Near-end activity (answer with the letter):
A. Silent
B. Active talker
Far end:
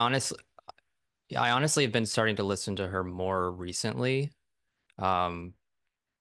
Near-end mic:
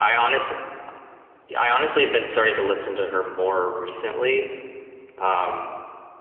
A